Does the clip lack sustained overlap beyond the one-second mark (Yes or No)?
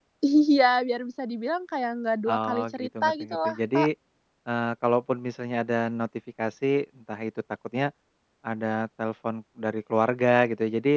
No